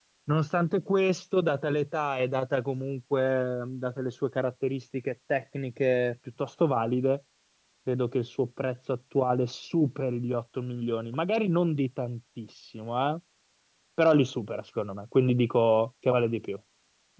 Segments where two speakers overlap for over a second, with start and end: none

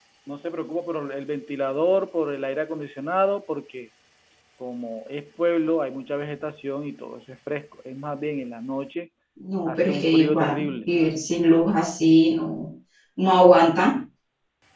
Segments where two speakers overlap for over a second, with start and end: 9.7-10.9

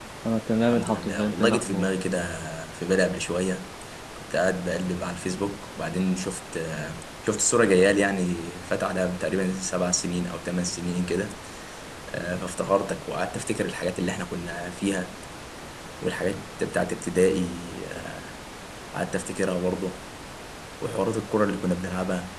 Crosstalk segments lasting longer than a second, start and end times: 0.6-1.9

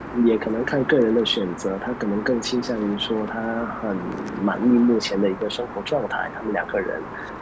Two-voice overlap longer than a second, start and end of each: none

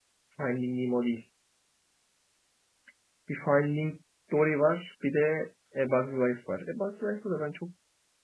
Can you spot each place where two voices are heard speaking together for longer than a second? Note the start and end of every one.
none

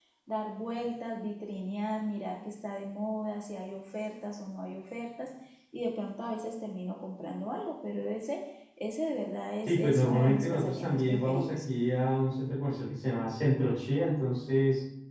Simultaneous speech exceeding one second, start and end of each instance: 9.6-11.6

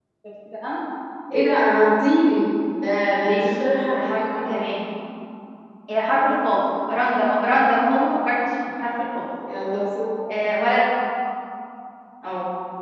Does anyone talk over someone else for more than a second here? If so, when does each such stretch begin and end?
3.2-4.5

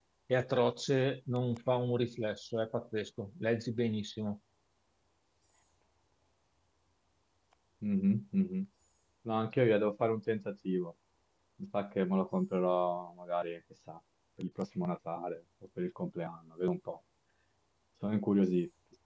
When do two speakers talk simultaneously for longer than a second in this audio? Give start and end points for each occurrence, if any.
none

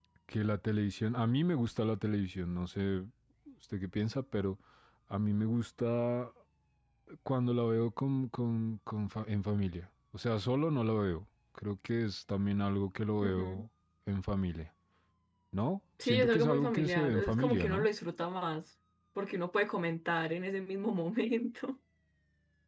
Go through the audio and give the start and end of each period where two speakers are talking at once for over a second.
16.0-17.9

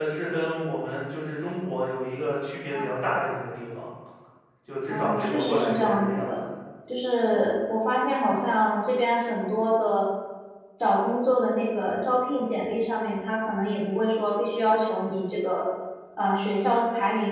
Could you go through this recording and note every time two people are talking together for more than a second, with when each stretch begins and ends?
4.9-6.4

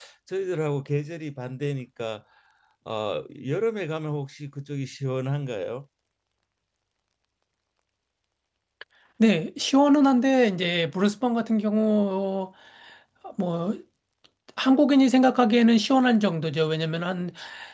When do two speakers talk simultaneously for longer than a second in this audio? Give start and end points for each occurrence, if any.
none

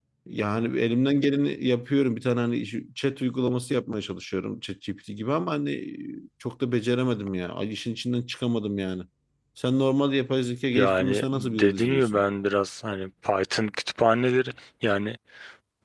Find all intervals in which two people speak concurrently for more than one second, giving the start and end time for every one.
10.7-12.2

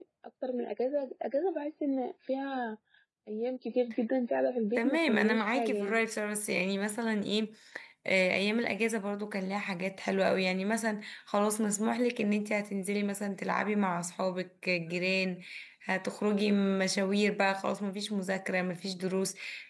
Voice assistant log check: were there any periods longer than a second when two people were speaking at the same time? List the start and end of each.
4.8-6.0

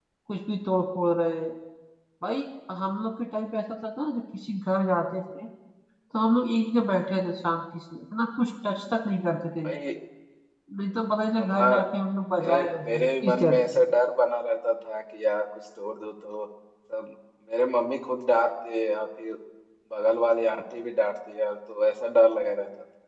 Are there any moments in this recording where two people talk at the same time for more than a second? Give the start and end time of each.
12.4-13.8

